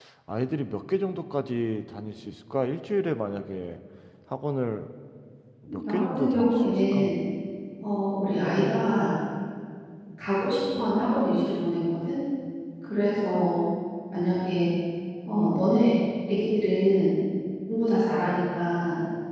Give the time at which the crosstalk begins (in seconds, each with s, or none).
5.9 s